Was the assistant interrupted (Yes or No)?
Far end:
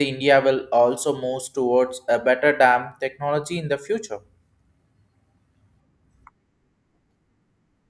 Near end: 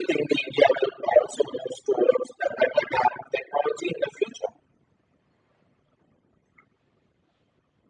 No